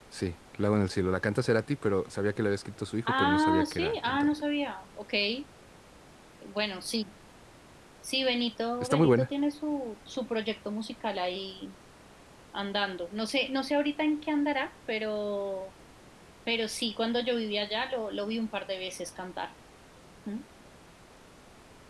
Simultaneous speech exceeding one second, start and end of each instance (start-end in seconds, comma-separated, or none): 3.1-4.3